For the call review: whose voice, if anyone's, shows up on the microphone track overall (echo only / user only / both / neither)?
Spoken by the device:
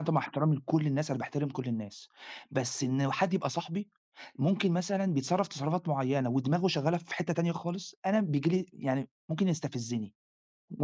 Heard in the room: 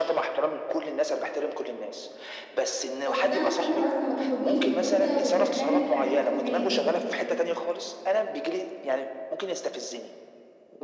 both